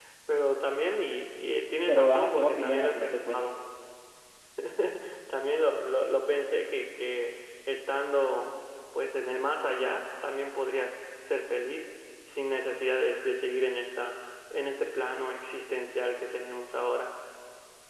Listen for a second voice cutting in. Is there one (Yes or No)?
Yes